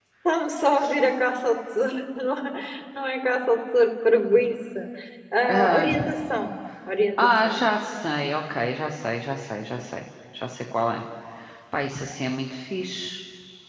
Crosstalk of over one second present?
No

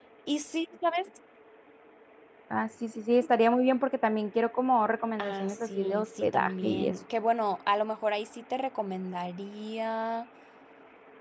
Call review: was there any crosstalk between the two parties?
Yes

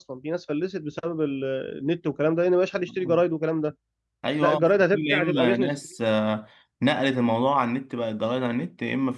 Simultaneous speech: Yes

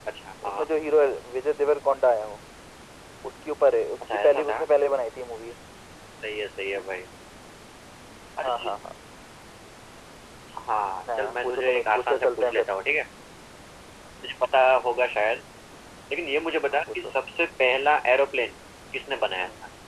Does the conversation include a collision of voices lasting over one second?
Yes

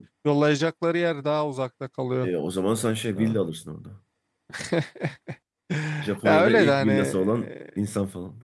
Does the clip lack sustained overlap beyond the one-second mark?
No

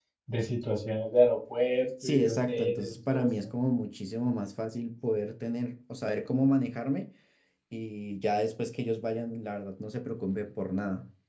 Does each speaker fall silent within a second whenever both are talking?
No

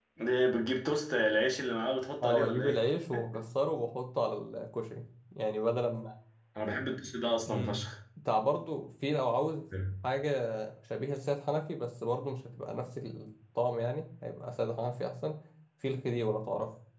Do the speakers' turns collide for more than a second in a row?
No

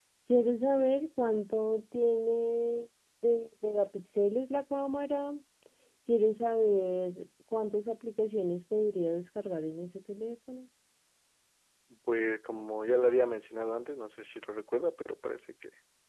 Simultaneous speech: No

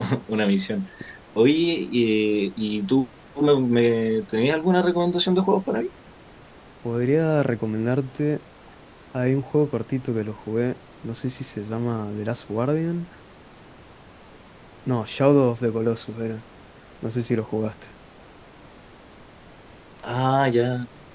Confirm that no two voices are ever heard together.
Yes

